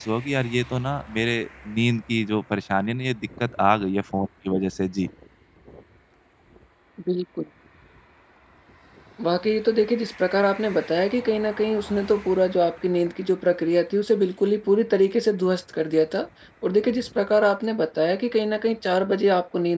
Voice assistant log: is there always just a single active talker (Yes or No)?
Yes